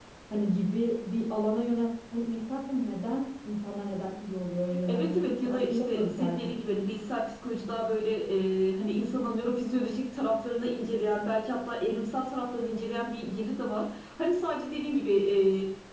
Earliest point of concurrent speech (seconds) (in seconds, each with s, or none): 4.7 s